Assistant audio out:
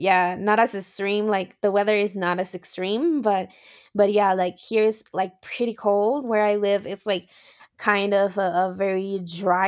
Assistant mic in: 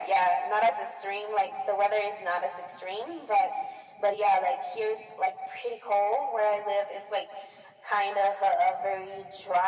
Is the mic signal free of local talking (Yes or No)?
Yes